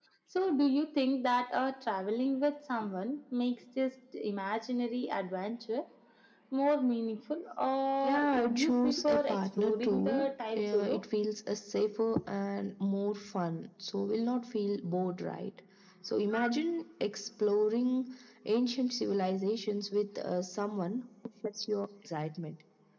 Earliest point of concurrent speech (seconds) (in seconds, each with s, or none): 8.0 s